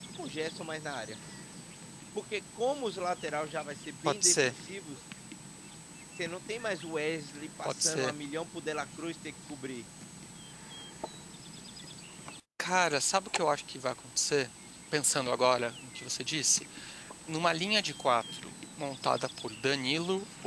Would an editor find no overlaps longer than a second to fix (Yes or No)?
Yes